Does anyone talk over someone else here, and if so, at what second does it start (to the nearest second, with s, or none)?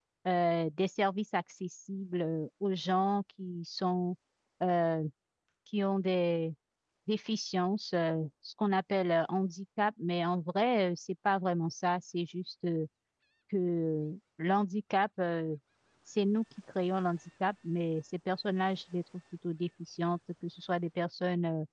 none